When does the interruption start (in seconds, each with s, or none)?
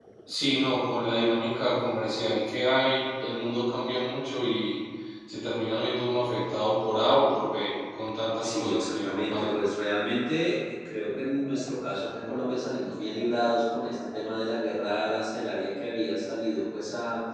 8.4 s